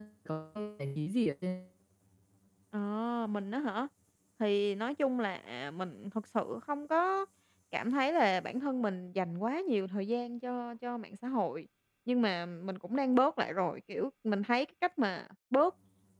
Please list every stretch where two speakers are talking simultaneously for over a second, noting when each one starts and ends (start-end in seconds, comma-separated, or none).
none